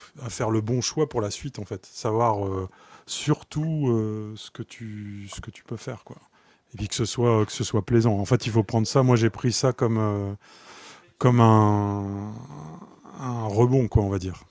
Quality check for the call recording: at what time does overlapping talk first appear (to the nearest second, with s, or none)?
none